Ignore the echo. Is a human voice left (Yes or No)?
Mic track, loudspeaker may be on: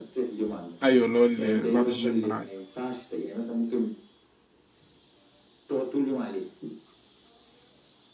Yes